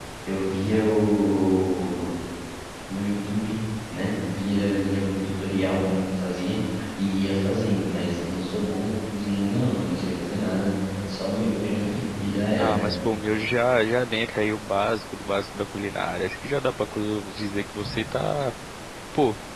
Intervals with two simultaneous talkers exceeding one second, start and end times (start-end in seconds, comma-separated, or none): none